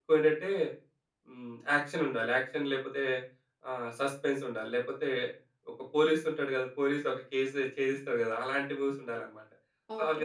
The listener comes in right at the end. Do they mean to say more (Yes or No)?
Yes